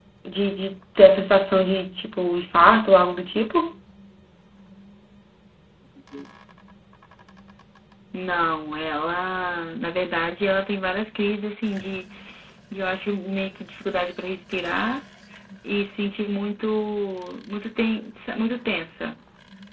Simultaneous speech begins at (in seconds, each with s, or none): none